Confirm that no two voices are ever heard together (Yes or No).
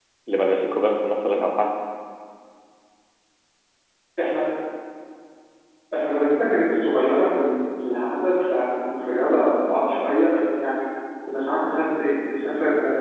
Yes